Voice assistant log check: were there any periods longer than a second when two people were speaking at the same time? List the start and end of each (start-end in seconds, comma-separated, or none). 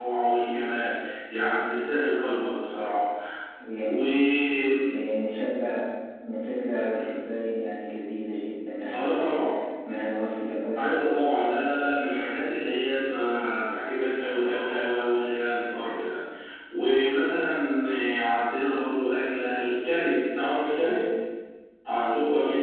none